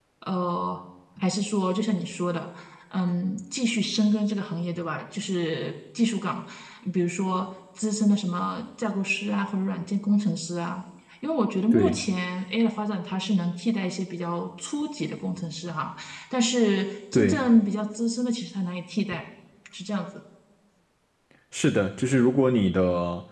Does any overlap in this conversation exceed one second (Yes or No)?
No